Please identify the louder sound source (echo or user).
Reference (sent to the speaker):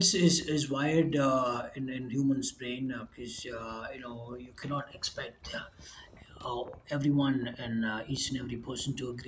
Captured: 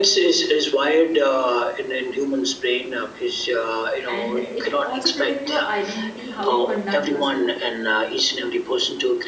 echo